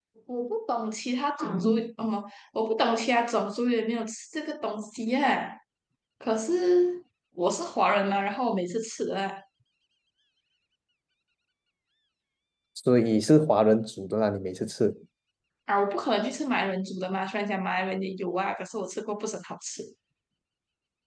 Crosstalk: none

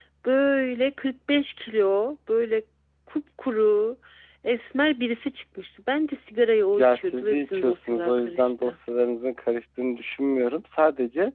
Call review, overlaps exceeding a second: present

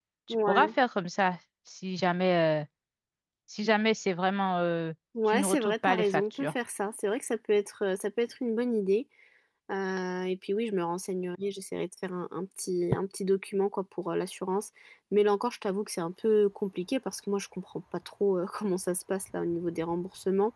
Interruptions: present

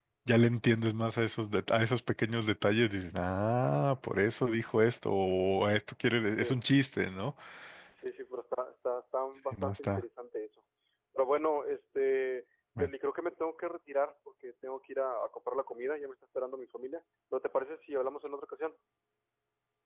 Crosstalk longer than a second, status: none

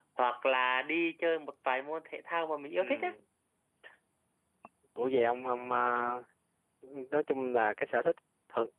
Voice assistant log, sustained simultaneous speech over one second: none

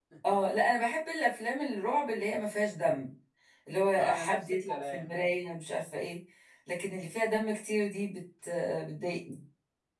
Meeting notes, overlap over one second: present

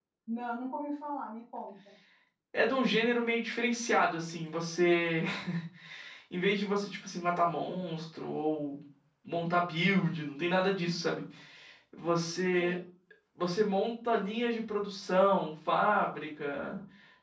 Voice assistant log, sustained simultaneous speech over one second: none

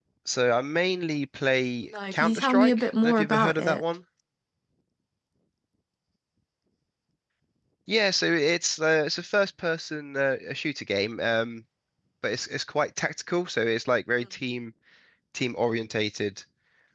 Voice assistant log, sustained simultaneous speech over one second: present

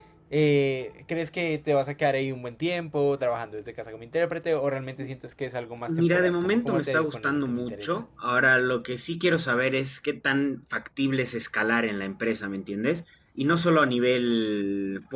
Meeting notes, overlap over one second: present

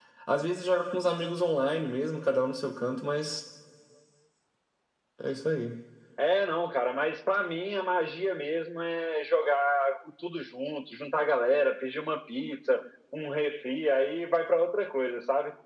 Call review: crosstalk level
none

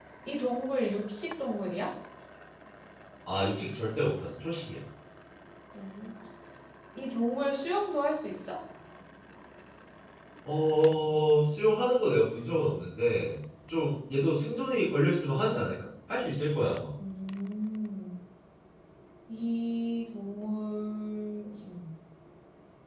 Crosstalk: none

